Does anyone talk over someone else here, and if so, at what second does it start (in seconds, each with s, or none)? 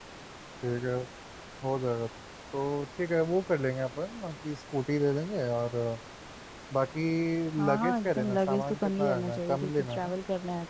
7.7 s